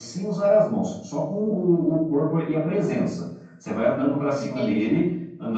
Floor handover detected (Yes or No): No